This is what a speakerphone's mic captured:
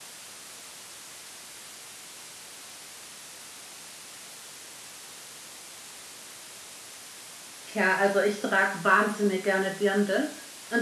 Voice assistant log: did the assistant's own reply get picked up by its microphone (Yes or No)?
No